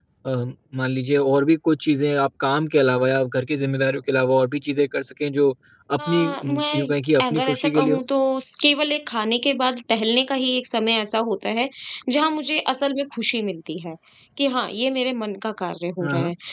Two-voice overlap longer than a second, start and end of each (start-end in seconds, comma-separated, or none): 6.0-8.0